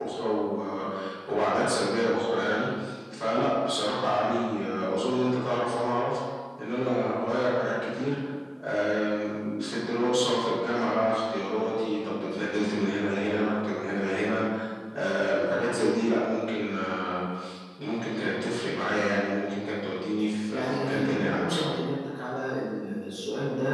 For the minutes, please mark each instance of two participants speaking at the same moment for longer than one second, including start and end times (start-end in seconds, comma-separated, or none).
20.5-21.7